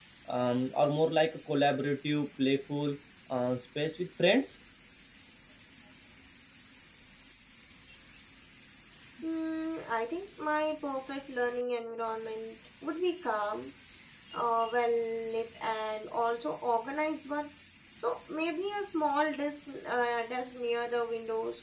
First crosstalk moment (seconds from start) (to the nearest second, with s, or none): none